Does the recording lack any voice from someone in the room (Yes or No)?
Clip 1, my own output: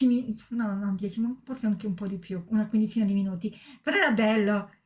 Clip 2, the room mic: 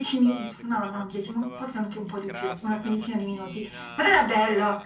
No